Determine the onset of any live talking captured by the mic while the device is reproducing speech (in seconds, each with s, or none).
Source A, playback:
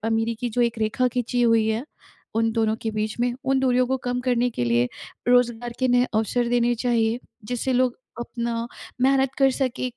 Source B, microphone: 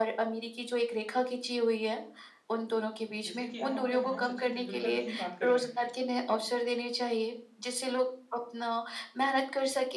3.2 s